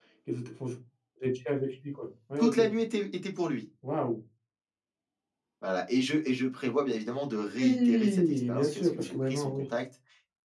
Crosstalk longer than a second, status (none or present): present